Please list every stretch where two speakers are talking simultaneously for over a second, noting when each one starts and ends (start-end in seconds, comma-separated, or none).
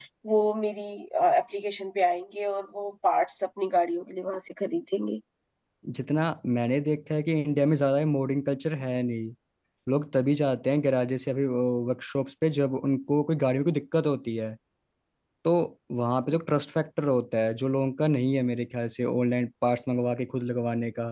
none